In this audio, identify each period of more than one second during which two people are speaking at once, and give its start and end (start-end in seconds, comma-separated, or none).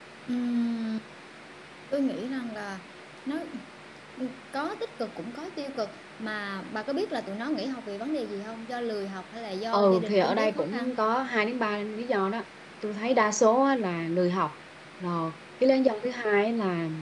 9.7-10.9